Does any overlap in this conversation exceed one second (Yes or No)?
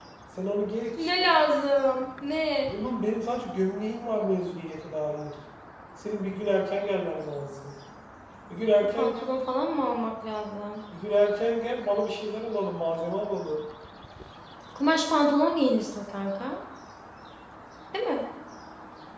No